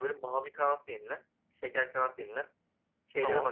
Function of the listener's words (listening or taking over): listening